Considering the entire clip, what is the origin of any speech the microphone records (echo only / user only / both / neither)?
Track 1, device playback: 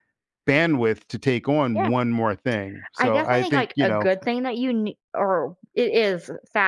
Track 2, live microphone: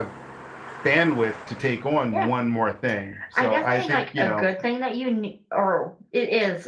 echo only